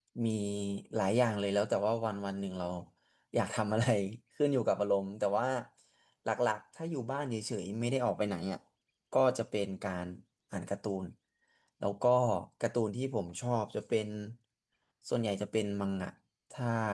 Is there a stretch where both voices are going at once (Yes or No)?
No